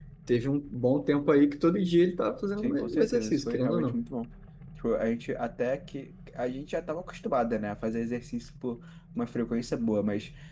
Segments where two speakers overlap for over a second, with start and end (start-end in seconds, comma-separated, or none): 2.6-4.0